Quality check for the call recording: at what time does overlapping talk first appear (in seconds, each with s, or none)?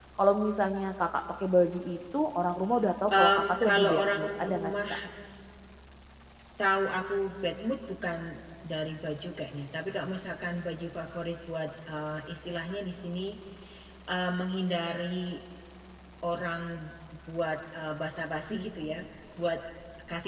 3.1 s